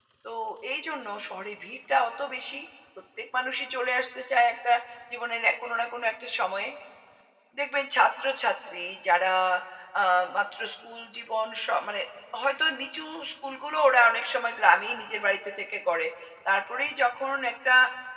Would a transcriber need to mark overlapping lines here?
No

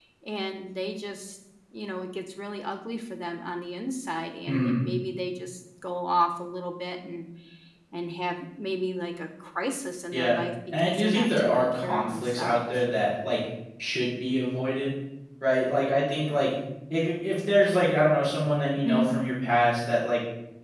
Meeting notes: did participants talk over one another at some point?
Yes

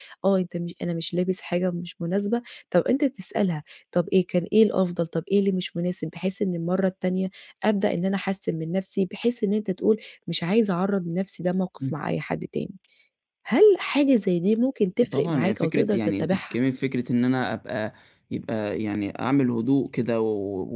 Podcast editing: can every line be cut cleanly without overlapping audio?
No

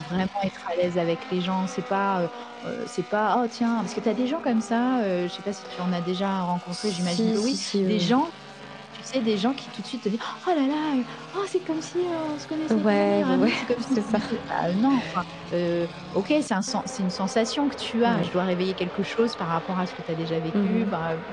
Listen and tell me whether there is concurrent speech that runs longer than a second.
Yes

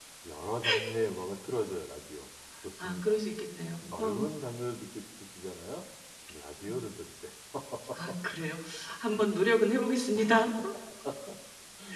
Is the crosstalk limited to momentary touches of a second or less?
Yes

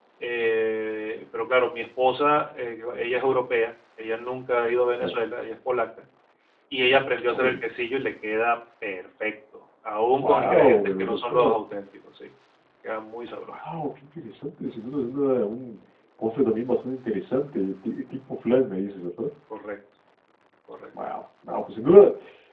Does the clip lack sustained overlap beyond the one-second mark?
No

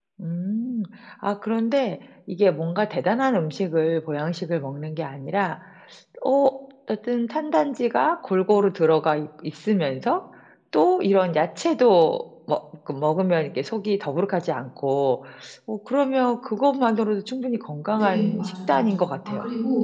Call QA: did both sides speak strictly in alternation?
No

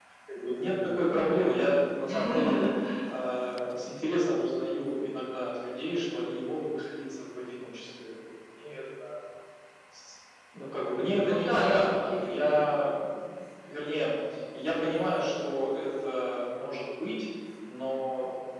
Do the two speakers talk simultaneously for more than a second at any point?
Yes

